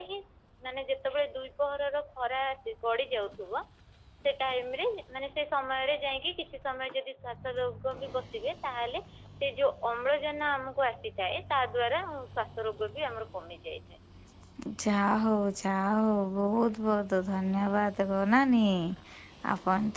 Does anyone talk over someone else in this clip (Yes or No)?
No